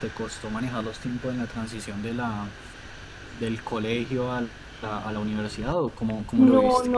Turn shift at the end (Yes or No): Yes